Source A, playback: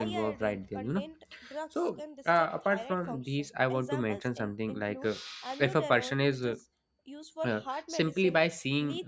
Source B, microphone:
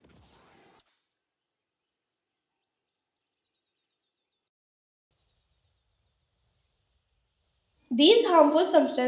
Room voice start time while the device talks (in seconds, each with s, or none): 7.9 s